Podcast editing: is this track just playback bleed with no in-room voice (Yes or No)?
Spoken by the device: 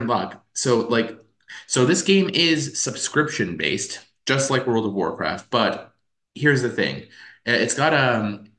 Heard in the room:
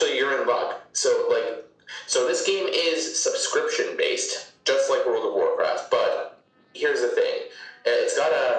Yes